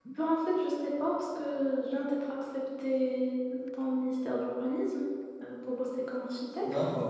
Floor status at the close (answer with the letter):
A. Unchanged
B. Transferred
A